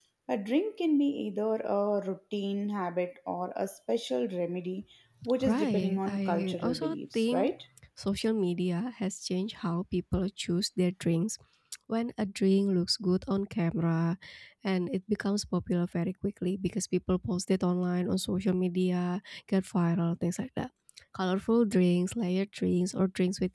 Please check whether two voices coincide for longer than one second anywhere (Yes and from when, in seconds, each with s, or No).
Yes, from 5.4 s